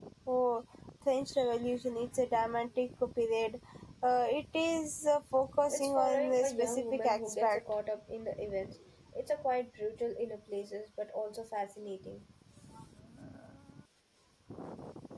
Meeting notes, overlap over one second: present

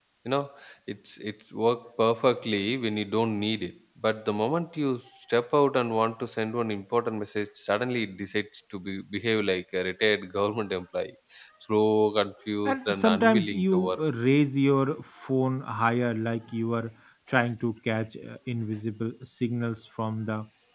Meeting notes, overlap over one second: present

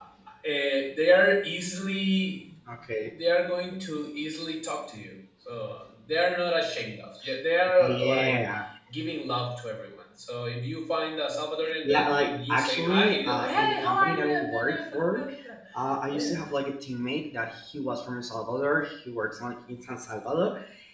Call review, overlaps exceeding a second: present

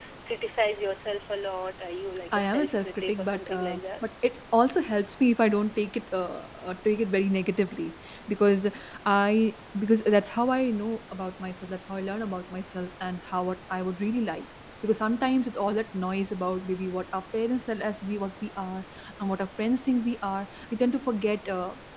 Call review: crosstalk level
present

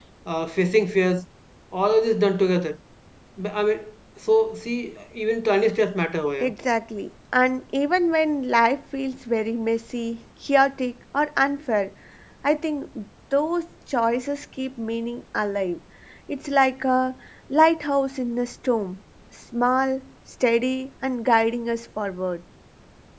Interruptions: none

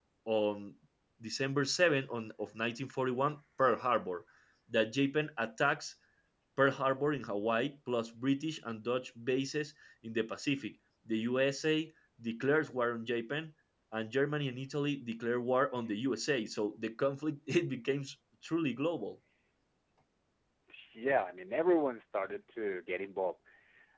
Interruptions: none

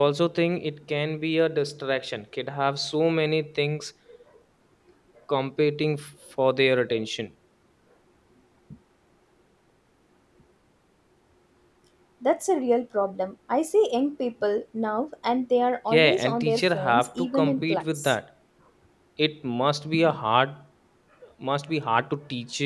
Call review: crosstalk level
present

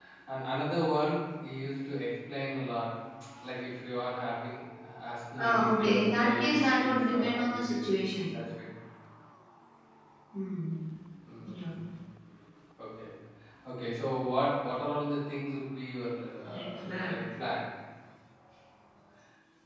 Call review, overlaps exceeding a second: present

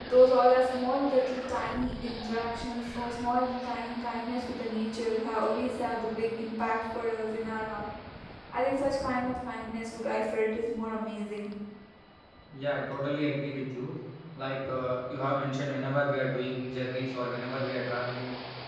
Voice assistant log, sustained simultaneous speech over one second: none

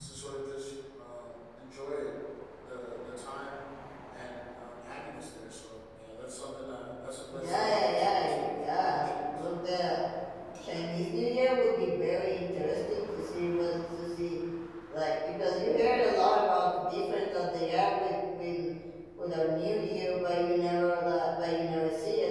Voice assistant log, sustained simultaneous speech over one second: present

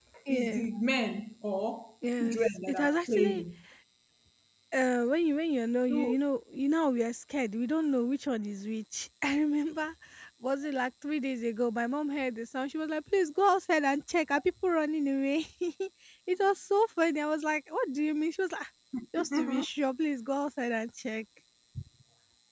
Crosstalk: present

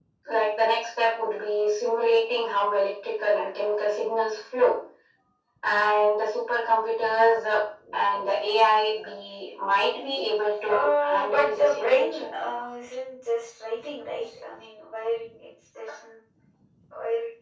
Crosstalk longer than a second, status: present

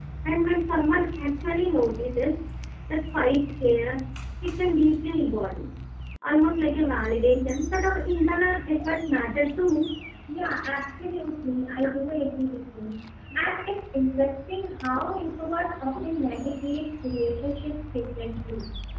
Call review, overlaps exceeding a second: none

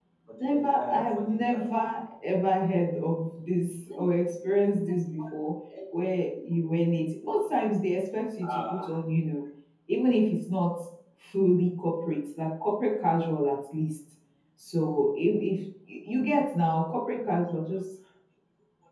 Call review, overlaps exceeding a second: present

